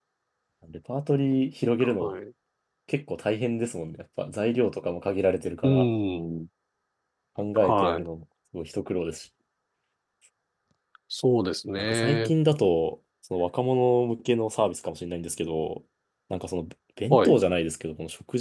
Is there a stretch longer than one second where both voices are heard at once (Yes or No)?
No